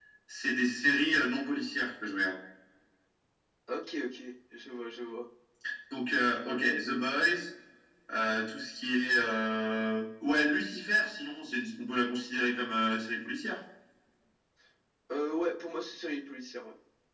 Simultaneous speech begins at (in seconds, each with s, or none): none